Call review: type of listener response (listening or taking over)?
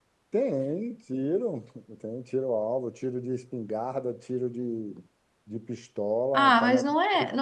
taking over